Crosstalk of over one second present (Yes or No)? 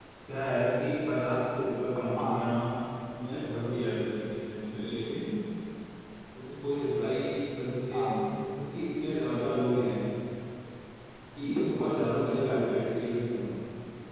Yes